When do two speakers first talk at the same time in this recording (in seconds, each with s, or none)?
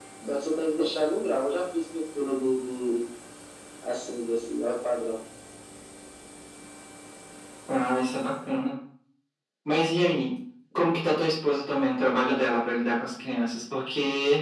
none